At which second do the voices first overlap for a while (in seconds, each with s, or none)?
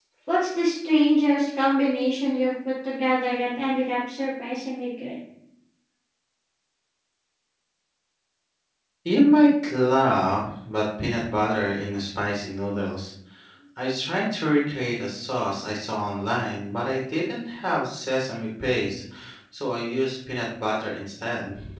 none